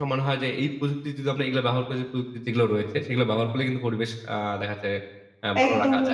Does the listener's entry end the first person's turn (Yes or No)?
Yes